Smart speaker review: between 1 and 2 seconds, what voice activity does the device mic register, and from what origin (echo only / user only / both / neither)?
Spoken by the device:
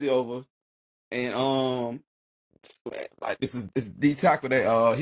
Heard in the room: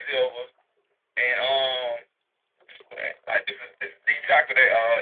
echo only